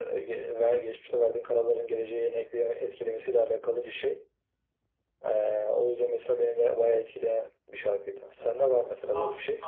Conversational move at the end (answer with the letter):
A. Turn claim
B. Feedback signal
A